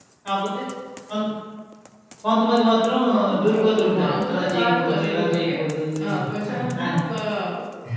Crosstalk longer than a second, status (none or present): present